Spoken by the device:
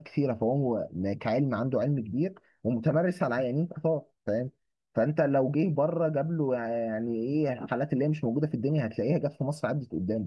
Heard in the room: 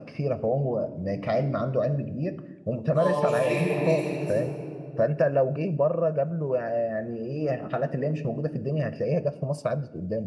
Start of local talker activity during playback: 3.0 s

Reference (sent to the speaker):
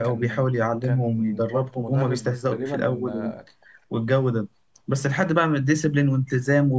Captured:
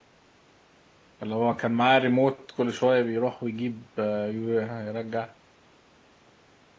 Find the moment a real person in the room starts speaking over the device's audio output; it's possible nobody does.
1.2 s

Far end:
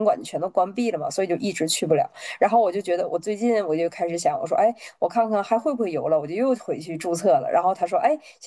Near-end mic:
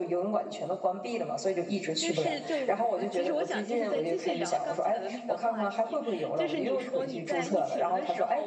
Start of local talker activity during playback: 2.0 s

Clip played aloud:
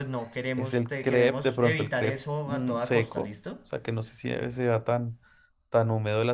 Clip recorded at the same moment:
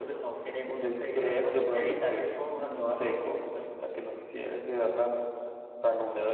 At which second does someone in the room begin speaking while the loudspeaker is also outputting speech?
none

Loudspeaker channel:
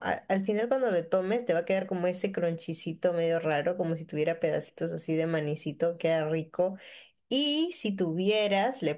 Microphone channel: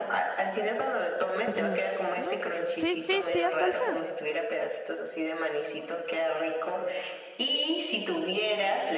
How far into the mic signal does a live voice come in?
1.4 s

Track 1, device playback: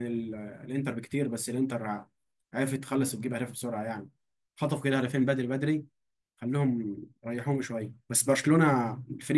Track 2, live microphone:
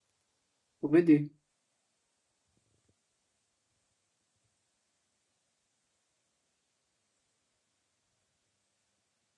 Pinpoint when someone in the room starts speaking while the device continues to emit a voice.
0.8 s

